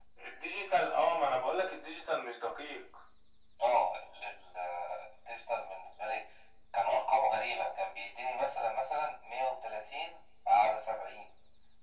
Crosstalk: none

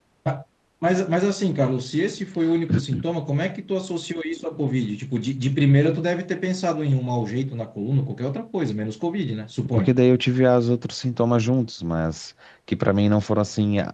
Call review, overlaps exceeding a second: none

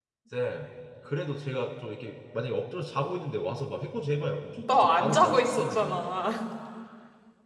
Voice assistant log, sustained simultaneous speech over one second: present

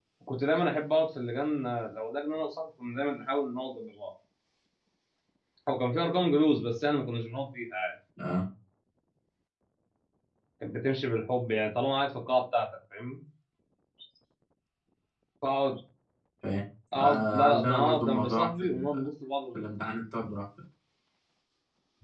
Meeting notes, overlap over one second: present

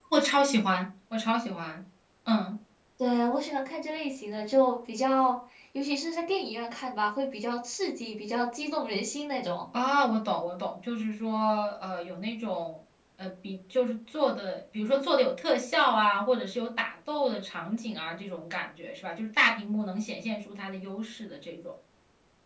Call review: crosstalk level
none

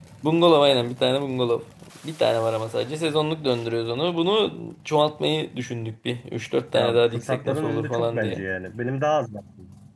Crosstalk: present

